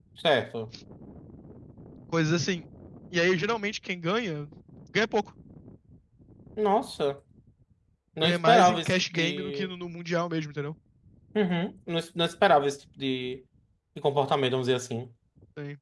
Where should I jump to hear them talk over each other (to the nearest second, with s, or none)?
8 s